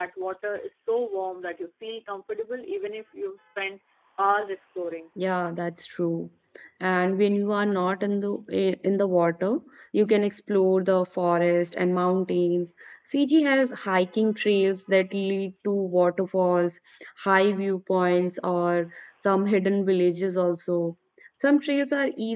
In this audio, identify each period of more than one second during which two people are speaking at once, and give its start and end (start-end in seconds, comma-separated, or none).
none